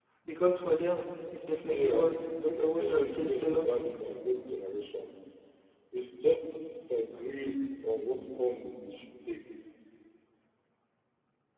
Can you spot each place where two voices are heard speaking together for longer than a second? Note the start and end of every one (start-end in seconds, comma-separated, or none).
1.5-3.8